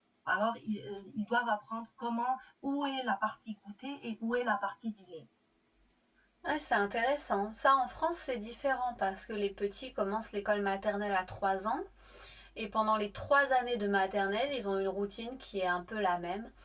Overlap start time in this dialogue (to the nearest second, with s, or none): none